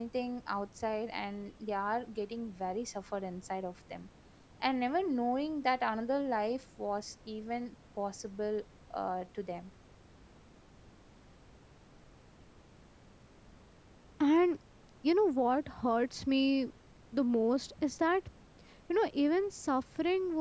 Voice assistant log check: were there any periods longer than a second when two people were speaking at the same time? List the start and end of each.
none

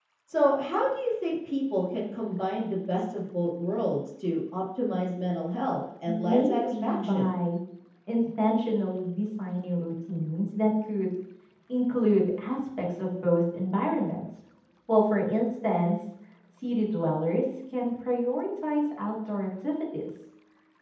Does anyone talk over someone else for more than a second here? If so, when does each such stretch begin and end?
6.1-7.3

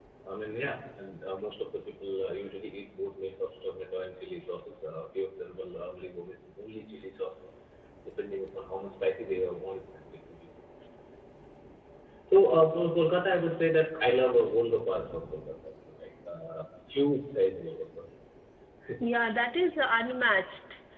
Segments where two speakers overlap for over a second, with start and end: none

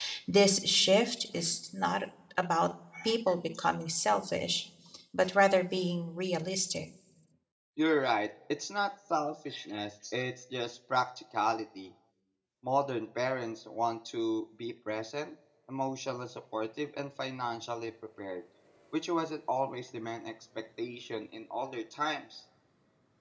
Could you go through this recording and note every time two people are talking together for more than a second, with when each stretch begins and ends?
none

